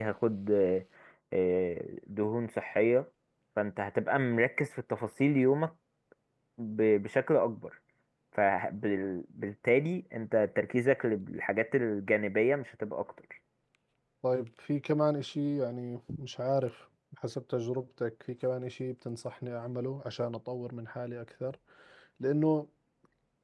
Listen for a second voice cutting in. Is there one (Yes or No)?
No